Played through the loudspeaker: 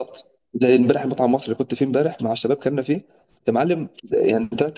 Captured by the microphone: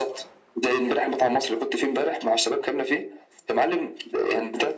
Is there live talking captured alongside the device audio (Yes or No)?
No